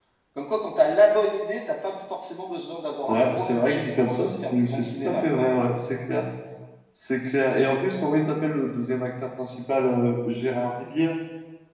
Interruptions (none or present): present